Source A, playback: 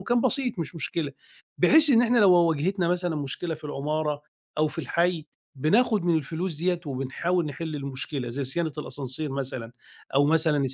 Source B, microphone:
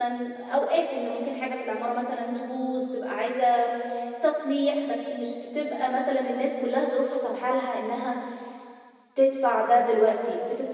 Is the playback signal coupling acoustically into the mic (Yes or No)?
No